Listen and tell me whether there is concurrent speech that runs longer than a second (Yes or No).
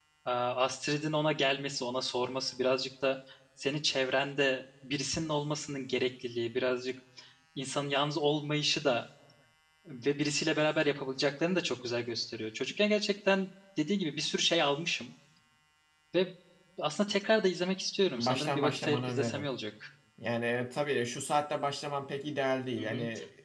Yes